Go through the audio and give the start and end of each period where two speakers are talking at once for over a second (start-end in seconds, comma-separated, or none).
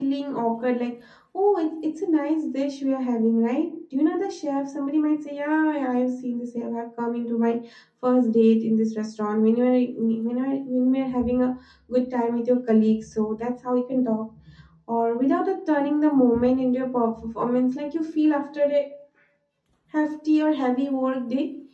none